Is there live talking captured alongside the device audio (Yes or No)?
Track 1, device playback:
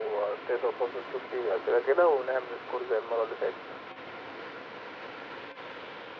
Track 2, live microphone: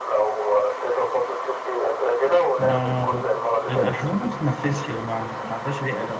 Yes